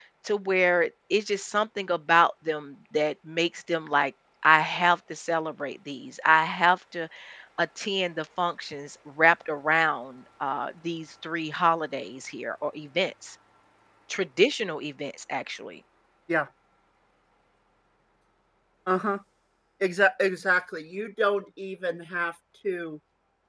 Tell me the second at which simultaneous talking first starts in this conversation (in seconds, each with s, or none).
none